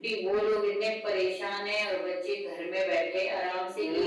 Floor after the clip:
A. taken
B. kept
A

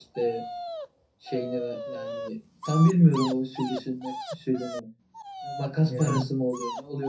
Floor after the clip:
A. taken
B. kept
B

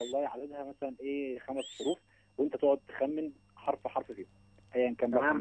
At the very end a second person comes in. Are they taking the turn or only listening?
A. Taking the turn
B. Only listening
A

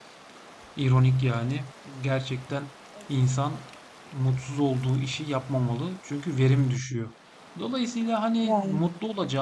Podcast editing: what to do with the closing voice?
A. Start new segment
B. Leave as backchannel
B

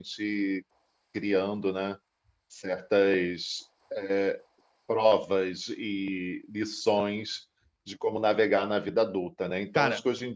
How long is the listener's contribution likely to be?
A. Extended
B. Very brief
B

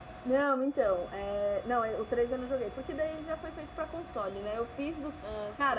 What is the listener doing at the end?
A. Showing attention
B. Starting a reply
A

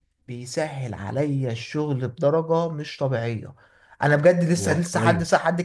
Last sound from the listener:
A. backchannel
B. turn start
A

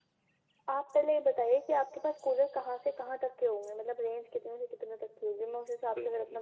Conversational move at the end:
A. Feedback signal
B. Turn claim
B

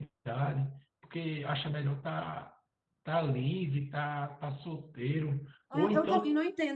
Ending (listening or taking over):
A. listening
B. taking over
B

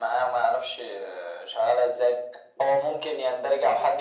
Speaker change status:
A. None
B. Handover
A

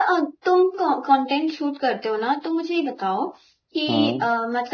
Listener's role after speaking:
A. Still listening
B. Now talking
A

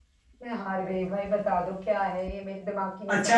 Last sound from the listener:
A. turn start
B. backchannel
A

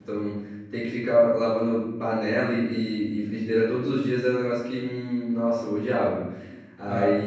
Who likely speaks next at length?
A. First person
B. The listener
A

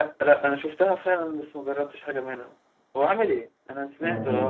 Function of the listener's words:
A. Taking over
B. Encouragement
A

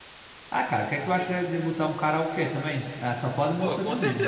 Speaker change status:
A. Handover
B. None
A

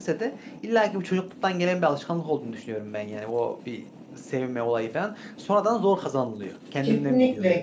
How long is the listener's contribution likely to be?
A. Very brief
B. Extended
B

